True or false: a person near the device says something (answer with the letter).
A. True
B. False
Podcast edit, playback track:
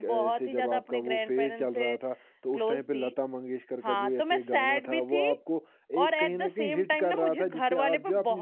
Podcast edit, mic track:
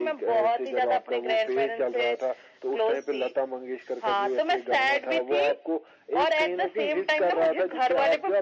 B